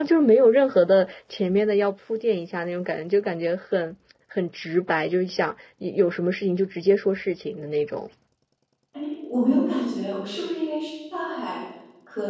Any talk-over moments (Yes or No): No